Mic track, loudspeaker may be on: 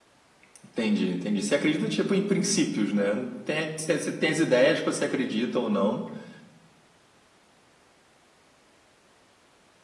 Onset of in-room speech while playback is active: none

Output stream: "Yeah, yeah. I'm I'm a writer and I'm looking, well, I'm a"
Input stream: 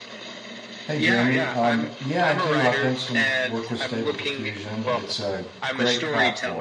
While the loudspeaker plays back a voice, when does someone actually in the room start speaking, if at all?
0.9 s

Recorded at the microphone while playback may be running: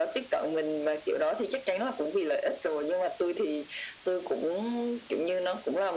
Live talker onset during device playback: none

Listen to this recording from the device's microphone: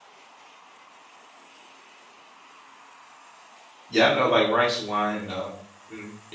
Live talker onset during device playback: 3.9 s

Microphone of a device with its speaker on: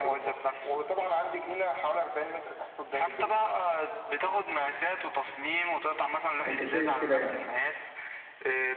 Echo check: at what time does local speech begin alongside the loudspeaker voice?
6.5 s

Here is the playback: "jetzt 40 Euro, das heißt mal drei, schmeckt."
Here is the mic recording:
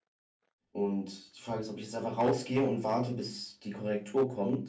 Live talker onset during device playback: 0.7 s

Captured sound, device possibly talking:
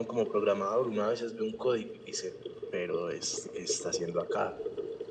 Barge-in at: none

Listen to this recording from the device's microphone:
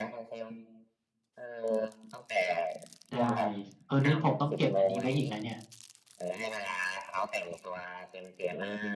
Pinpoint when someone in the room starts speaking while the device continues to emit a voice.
3.1 s

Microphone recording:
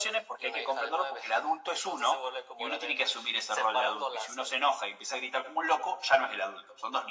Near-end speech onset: none

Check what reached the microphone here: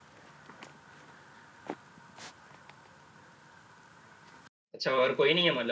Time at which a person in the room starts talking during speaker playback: 4.7 s

